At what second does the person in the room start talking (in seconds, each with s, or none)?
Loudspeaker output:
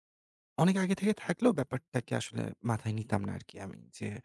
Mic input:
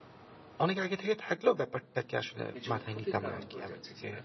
2.5 s